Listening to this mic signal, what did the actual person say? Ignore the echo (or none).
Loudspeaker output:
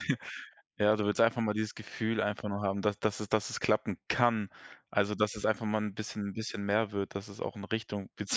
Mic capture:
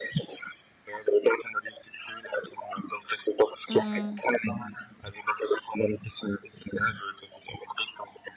Mhm.